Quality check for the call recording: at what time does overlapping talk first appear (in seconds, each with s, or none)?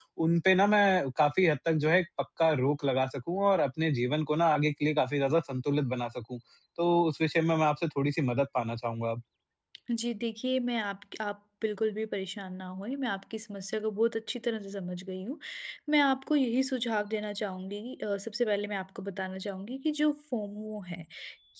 none